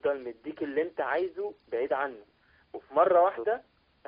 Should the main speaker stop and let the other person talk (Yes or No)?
No